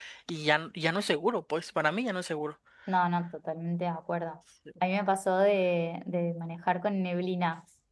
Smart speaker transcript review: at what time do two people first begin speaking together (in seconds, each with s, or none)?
none